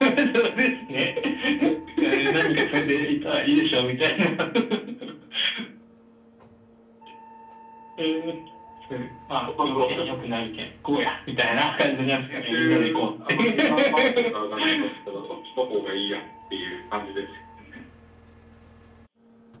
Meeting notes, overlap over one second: present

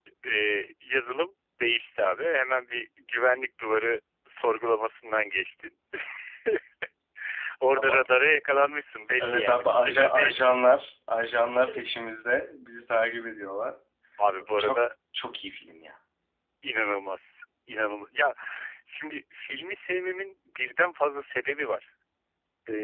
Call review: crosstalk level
present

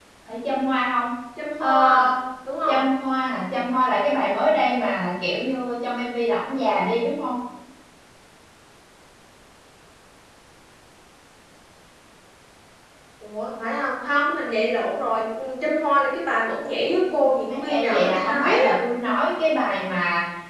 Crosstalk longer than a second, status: present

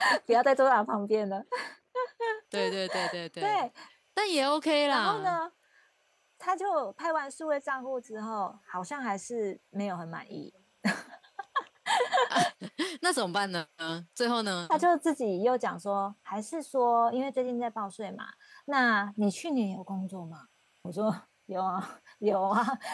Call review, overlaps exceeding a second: none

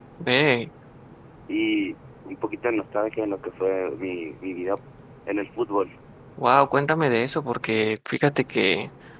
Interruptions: none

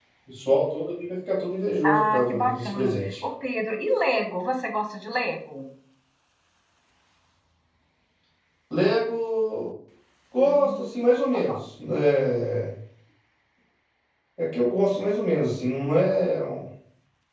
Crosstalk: present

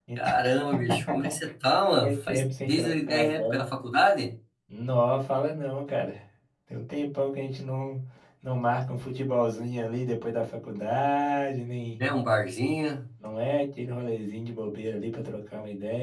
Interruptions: present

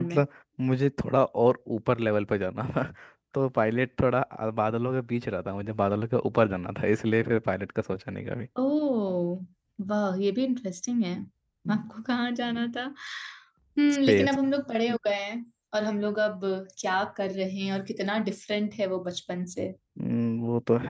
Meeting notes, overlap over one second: none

